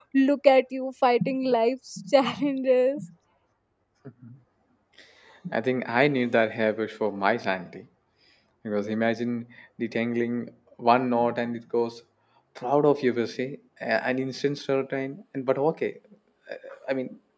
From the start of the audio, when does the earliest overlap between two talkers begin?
none

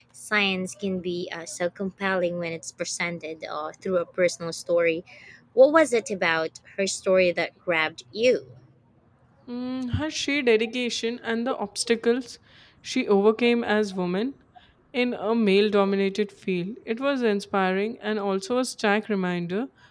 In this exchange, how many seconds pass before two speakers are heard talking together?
none

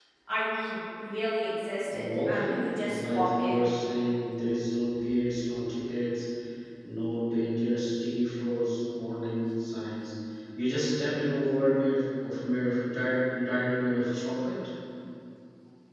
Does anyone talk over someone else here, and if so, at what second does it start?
2 s

